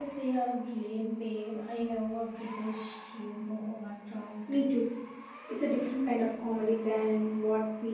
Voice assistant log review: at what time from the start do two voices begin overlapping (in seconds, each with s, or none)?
none